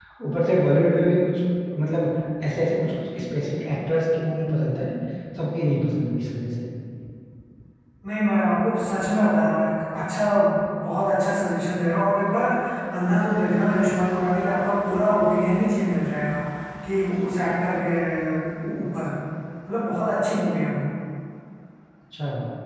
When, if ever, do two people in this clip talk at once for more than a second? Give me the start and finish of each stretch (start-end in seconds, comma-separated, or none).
none